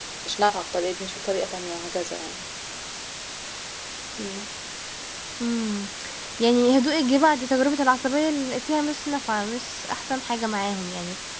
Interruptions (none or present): none